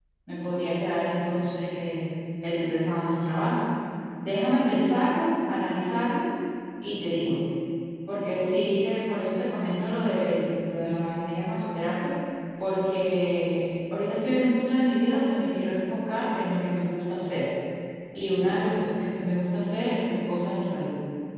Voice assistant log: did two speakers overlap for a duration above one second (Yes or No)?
No